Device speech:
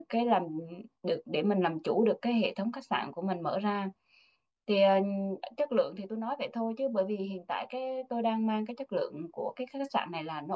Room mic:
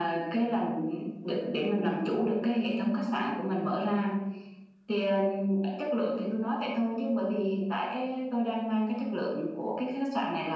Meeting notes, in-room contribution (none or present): none